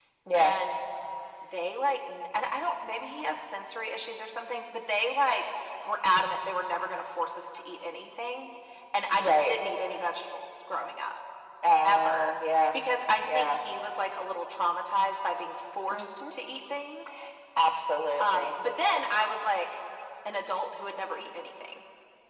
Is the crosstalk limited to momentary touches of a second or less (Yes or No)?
Yes